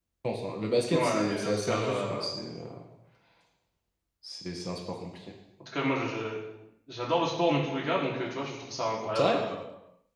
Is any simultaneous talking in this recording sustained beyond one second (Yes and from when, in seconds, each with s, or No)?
Yes, from 0.9 s